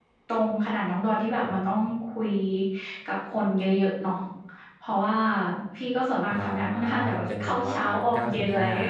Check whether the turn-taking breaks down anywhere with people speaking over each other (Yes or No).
Yes